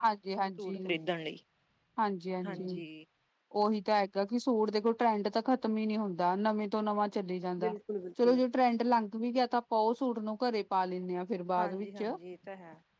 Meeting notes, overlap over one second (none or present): none